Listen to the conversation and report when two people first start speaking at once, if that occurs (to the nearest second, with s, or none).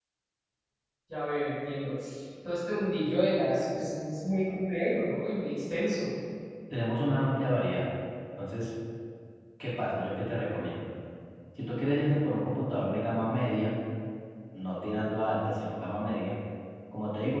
none